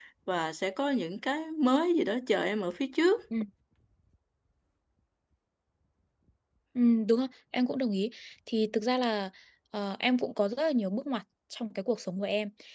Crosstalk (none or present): none